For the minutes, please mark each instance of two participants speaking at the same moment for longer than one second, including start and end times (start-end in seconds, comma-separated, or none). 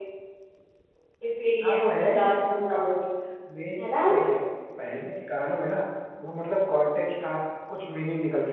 1.6-2.9